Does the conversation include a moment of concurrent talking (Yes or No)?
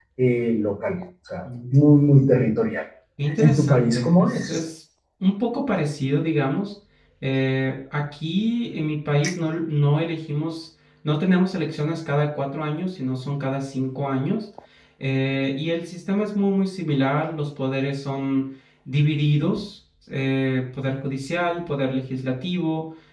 Yes